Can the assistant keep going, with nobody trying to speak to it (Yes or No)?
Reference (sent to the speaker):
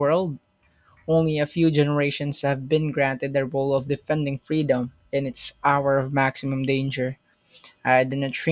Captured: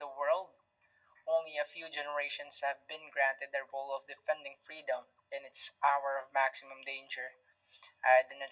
Yes